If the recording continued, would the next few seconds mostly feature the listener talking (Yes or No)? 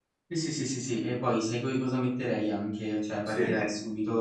No